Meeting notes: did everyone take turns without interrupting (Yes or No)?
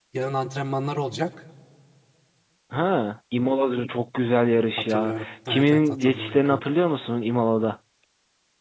No